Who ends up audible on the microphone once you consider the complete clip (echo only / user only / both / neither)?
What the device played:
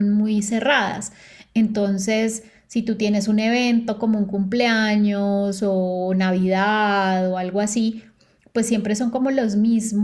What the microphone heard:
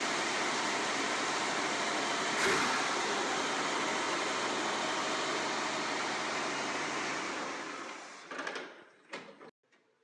neither